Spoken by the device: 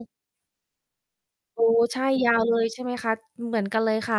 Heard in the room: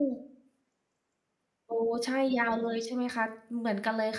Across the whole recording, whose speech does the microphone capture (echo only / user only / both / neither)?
echo only